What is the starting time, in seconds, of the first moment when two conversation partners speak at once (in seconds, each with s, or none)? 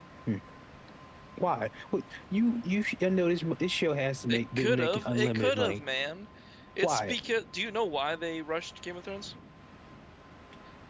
4.3 s